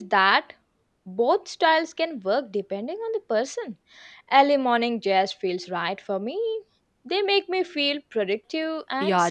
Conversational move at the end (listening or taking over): taking over